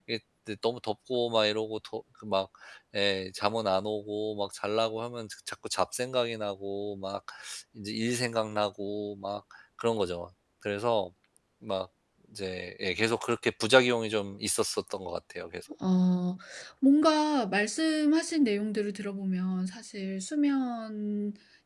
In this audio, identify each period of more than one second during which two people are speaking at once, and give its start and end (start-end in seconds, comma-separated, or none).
none